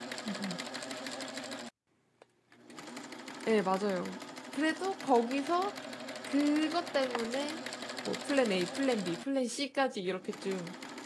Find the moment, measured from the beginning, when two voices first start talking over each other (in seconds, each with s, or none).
none